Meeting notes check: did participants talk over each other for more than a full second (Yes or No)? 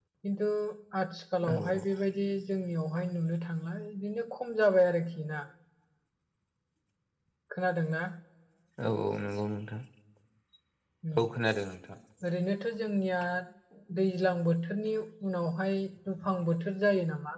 No